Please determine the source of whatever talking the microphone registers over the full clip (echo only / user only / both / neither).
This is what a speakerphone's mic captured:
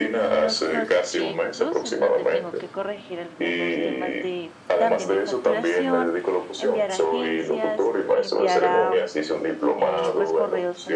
both